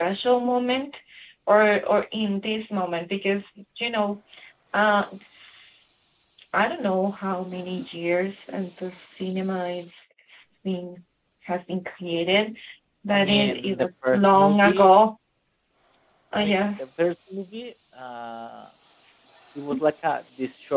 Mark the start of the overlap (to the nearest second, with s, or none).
13 s